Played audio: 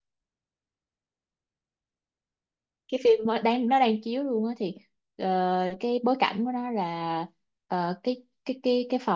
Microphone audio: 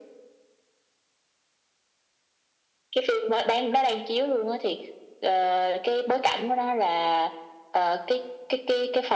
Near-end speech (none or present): none